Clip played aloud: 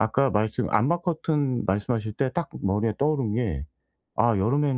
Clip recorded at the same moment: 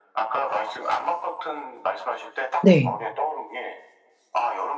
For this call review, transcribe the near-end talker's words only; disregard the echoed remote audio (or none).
네.